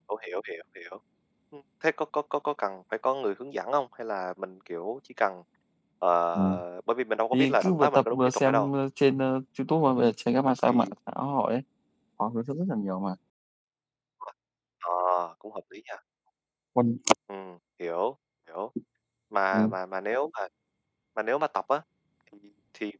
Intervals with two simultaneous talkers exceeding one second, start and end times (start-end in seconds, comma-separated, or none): 7.3-8.7